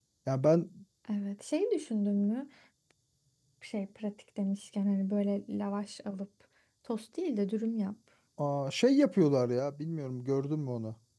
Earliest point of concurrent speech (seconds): none

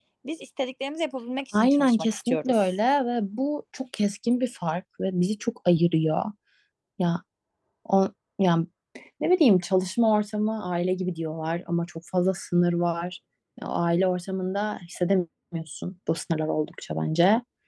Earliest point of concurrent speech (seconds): 1.5 s

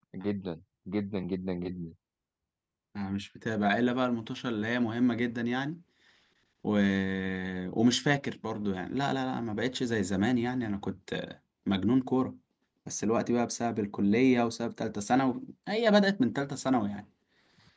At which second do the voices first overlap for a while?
none

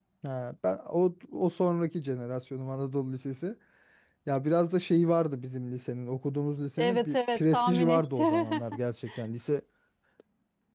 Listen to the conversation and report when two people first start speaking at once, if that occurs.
6.8 s

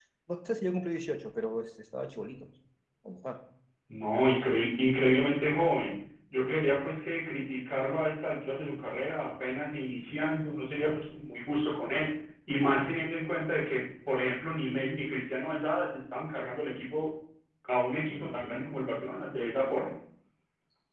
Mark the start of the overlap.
none

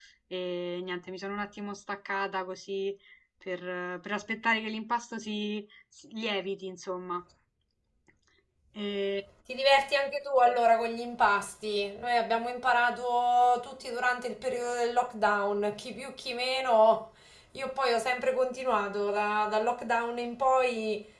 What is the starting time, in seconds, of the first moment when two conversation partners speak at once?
none

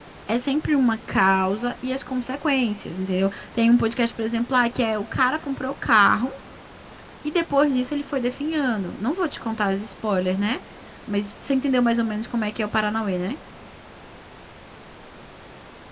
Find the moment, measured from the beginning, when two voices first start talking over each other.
none

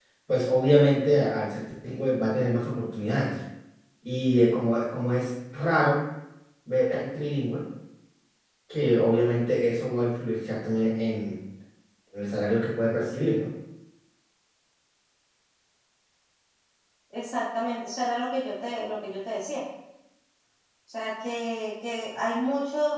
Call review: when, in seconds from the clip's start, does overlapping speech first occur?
none

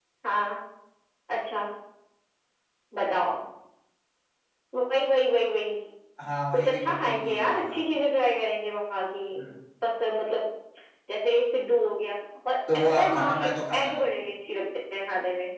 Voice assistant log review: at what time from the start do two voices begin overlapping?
6.5 s

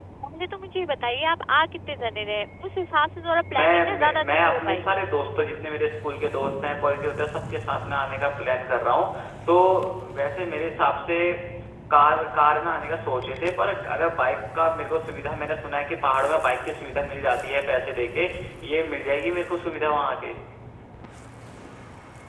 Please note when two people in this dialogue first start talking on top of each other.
3.5 s

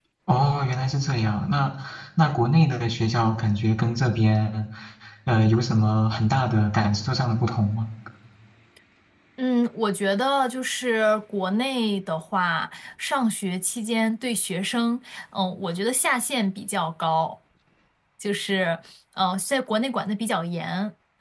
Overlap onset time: none

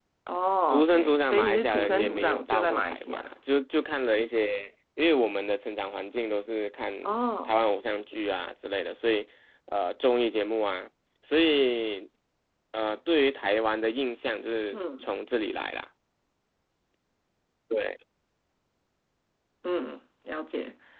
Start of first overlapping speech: 0.7 s

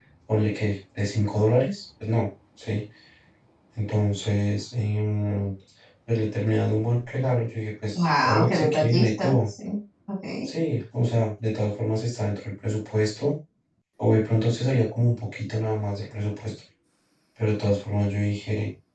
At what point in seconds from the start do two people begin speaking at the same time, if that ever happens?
8.0 s

